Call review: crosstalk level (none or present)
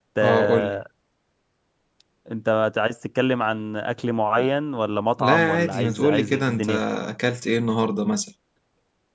present